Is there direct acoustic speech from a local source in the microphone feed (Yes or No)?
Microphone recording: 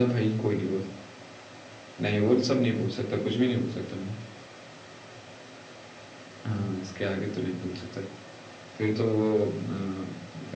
No